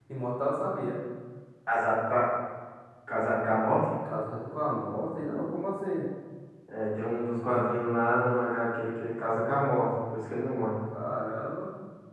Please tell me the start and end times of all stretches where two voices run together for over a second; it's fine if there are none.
none

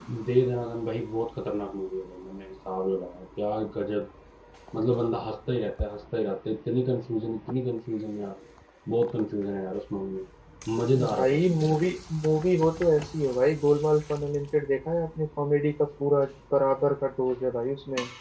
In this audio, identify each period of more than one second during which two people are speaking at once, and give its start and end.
none

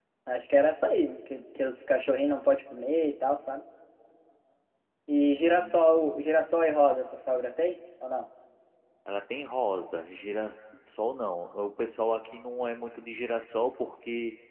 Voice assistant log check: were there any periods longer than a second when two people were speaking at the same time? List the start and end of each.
5.1-6.5

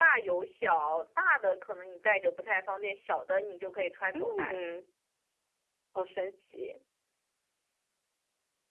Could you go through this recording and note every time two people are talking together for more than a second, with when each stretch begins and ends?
none

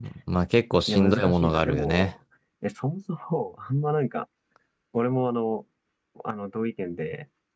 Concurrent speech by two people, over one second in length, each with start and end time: 0.9-2.1

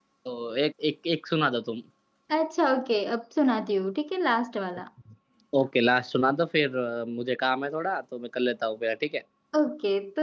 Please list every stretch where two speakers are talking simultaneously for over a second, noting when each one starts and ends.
none

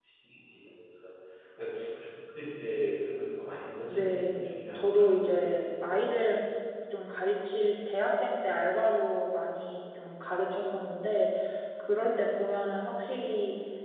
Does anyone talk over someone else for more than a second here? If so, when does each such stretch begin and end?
3.9-6.1

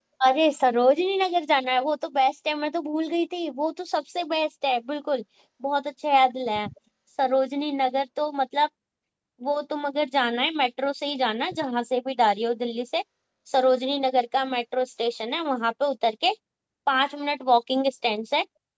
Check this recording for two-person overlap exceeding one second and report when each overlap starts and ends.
none

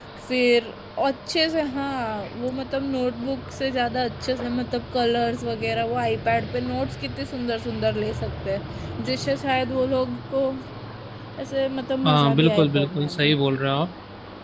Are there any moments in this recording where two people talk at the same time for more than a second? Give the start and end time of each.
12.1-13.3

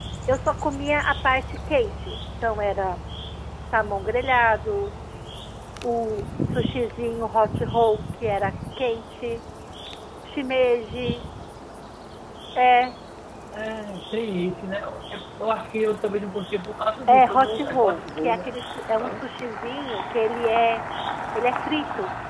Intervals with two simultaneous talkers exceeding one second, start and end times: 17.1-18.5

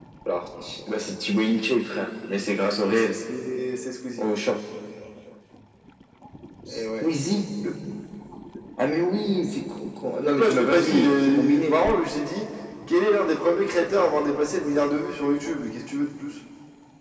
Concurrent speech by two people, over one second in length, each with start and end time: 10.2-11.8

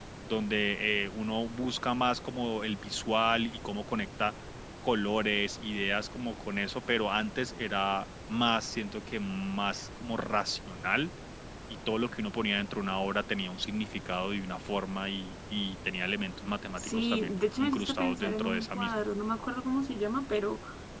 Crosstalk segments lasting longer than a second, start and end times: 16.8-18.9

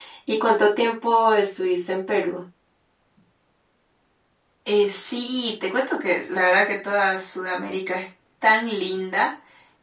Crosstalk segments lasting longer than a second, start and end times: none

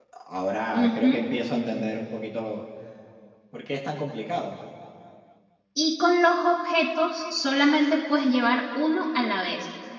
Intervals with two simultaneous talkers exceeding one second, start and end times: none

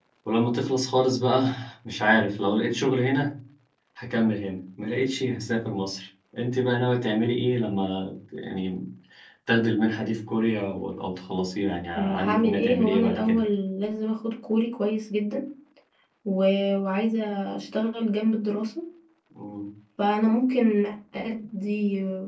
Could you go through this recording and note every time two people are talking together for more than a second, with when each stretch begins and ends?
11.9-13.4

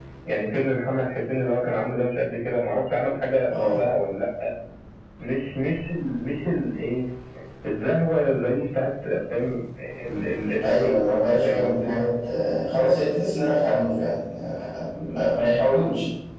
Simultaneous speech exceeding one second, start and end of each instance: 10.6-11.9

